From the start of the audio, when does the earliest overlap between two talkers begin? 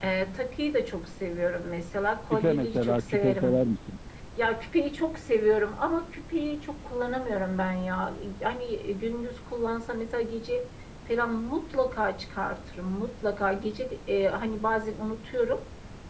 2 s

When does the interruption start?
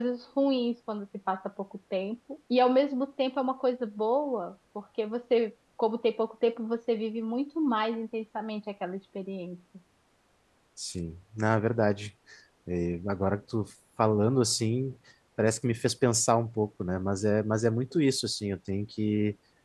none

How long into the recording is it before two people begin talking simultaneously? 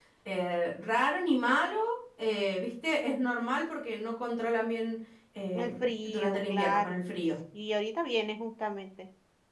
6 s

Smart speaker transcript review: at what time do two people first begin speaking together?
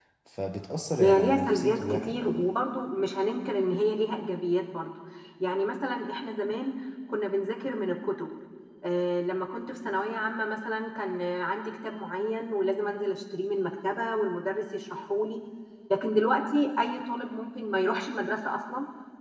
1 s

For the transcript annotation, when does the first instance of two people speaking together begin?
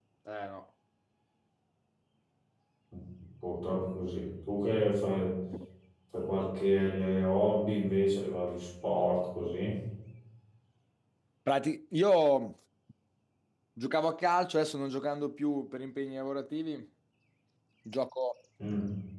none

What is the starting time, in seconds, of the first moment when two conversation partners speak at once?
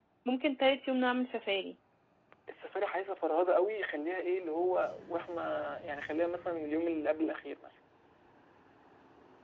none

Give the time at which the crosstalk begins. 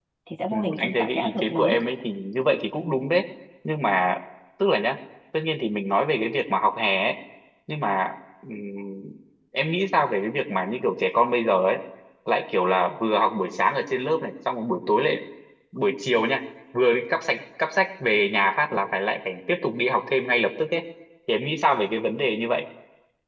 1 s

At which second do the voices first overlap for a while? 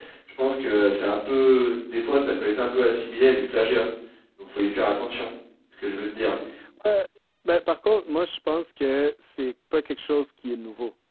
none

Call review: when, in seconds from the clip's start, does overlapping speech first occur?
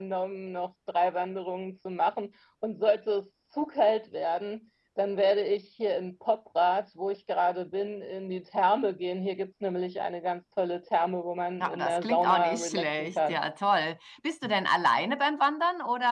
12 s

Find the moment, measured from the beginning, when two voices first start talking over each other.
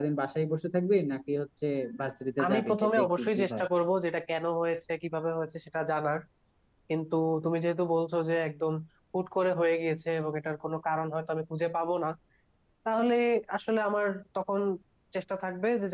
2 s

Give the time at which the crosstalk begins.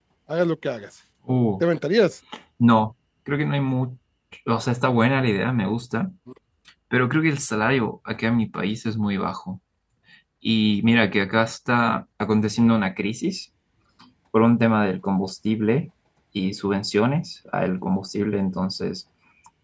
none

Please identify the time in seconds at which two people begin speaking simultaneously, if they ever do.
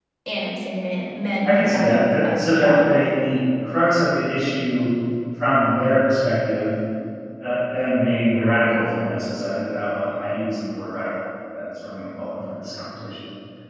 1 s

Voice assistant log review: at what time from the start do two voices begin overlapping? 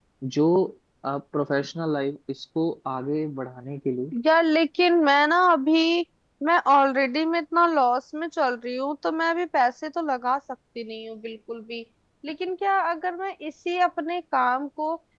none

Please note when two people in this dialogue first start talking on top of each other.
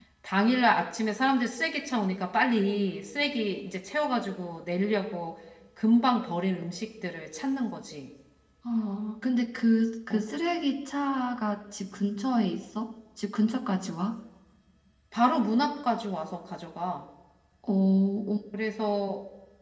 none

